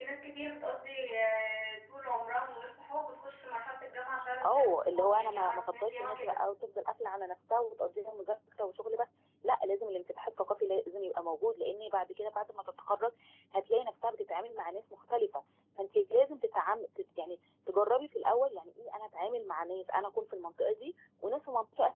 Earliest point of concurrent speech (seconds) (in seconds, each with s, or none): 4.4 s